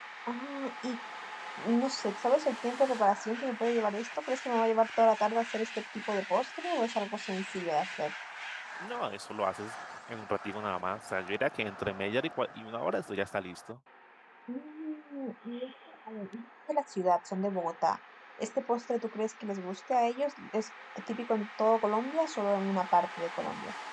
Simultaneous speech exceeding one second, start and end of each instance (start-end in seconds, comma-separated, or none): none